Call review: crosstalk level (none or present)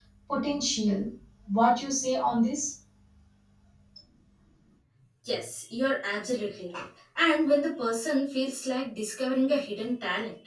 none